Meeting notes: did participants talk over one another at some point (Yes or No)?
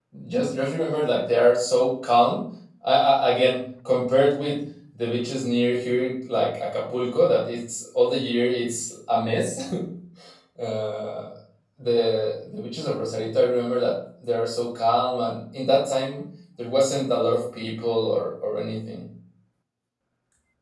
No